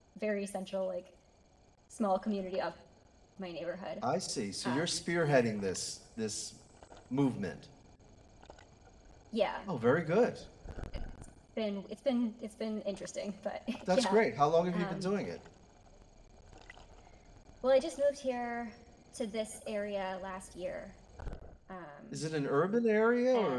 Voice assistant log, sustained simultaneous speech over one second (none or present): none